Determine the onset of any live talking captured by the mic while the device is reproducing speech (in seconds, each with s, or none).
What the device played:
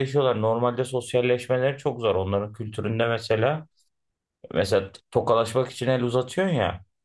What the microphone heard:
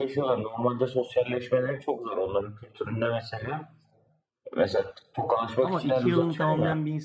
5.6 s